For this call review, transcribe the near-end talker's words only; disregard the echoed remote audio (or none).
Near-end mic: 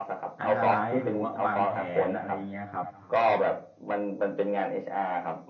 analyze หรือว่าวางแผนอะไรเงี้ยครับ